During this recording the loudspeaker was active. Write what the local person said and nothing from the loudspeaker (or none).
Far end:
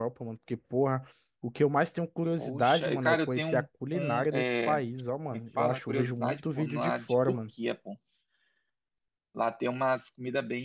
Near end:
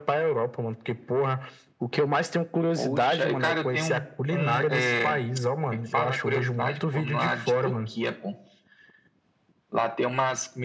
none